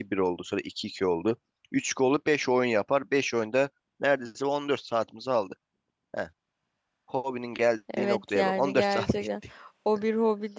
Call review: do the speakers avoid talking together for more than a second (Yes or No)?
No